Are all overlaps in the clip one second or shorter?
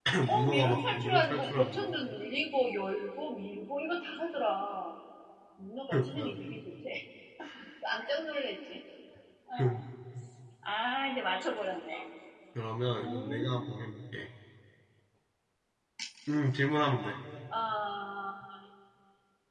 No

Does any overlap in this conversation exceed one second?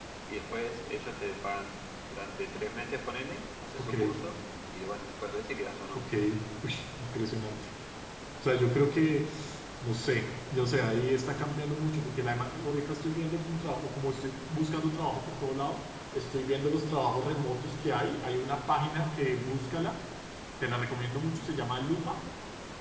No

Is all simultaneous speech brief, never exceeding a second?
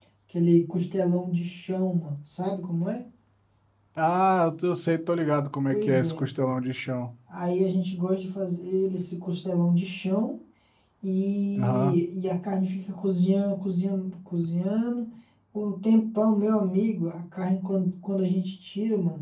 Yes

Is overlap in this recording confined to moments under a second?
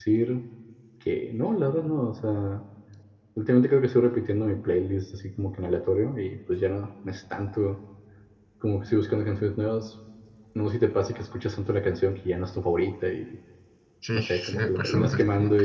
No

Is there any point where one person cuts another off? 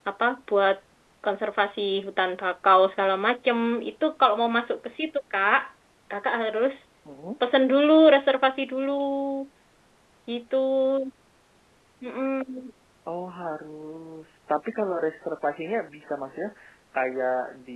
No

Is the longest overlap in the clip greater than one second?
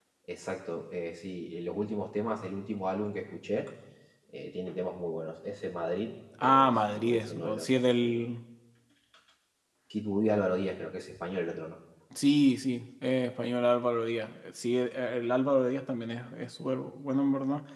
Yes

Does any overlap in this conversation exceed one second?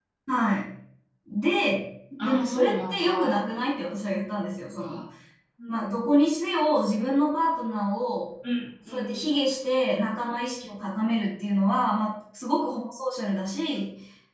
Yes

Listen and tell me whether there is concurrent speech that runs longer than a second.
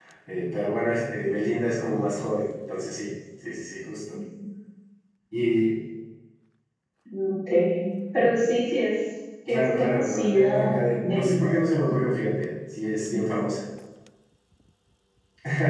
Yes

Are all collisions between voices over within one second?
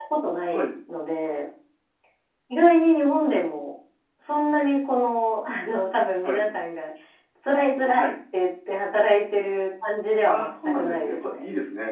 No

